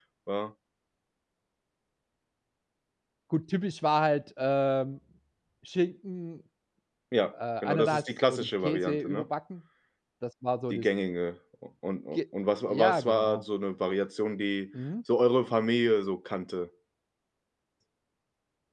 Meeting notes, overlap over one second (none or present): present